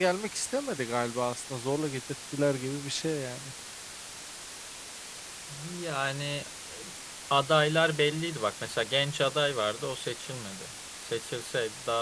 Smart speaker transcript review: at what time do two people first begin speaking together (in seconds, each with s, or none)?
none